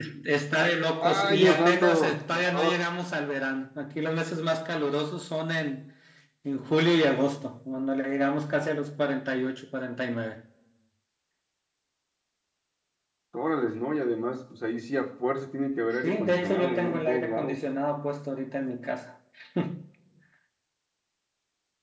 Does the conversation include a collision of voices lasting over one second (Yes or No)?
Yes